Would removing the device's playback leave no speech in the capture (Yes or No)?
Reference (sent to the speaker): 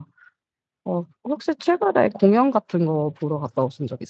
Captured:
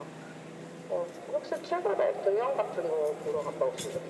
Yes